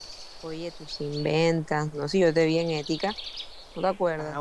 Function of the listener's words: taking over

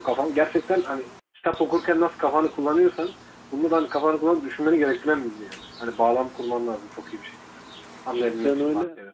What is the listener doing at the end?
taking over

